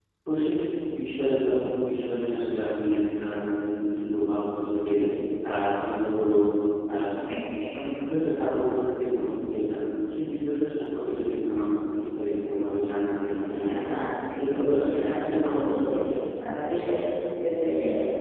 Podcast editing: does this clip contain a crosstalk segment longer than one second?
Yes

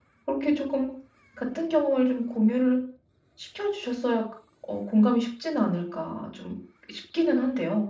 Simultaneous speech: No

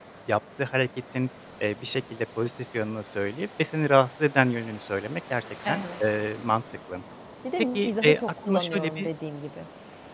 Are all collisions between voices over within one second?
No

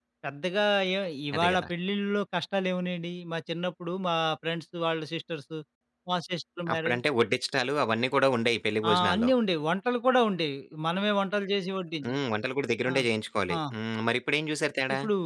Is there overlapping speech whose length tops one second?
No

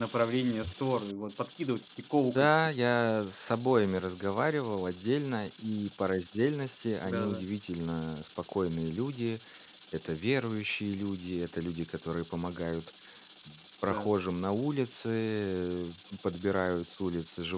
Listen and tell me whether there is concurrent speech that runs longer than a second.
No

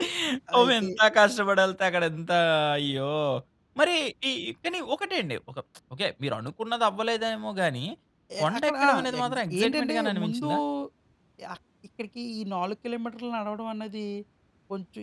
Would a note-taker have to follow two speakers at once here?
Yes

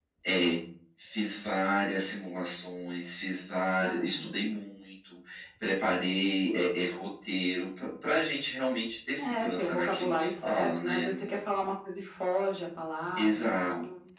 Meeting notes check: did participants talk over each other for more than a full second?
Yes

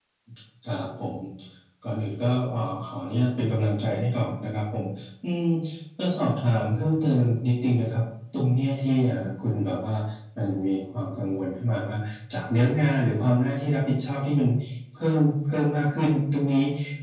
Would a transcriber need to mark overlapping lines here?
No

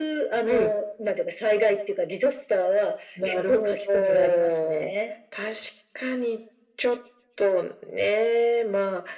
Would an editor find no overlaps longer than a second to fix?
No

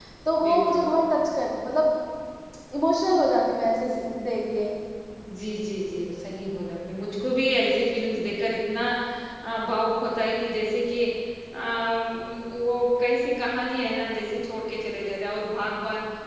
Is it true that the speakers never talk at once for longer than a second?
Yes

